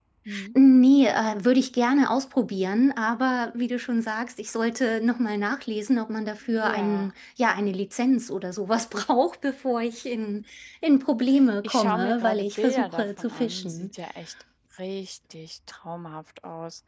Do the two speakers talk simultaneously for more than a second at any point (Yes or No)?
Yes